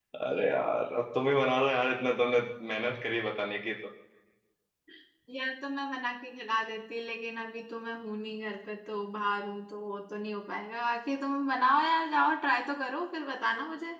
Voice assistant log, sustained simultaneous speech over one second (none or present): none